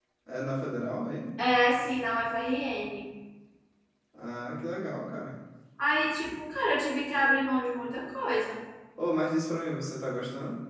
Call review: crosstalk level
none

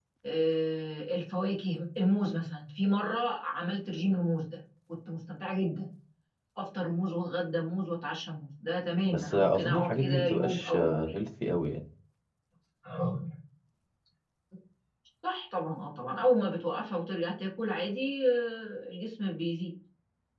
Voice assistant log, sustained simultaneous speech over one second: present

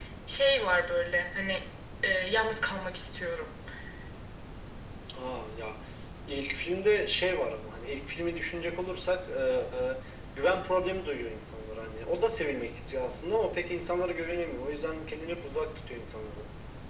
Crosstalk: none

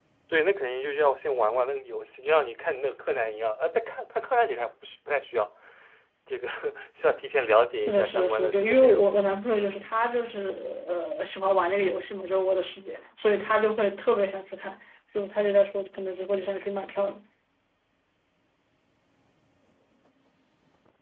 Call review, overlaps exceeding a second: present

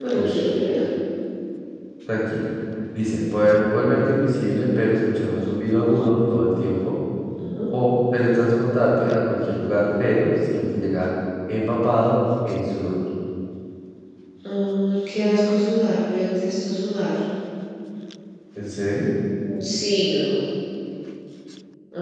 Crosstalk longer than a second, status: none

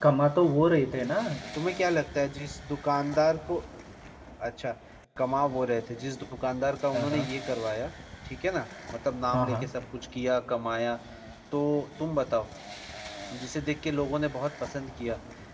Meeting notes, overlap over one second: none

